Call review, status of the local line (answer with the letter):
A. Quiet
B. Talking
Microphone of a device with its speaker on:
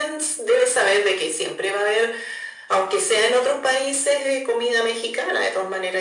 A